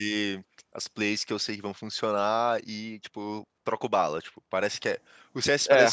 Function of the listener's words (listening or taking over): listening